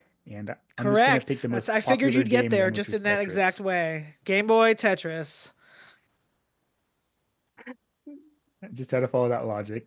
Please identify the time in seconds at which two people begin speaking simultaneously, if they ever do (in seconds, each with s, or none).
0.8 s